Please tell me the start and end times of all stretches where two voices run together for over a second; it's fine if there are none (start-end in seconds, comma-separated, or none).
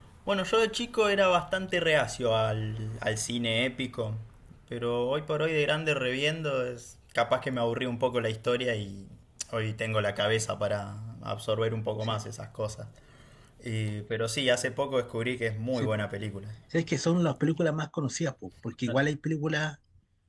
none